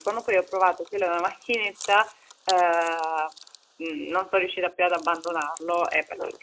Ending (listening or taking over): listening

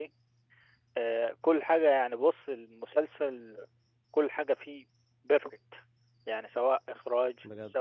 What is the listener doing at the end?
listening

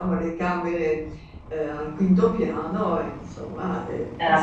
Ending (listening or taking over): listening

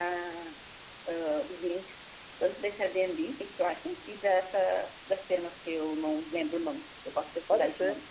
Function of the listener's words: taking over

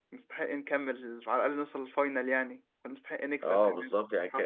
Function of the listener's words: taking over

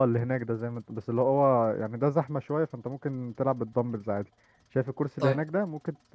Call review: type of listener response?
listening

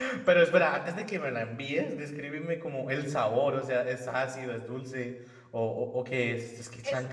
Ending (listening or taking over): taking over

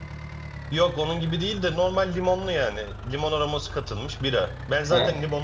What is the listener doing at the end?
listening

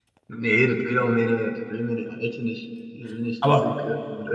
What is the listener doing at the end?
listening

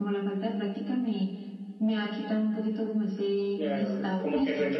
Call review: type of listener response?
taking over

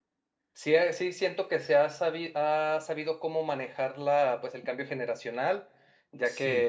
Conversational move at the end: listening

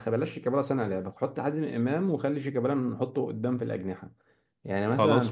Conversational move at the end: listening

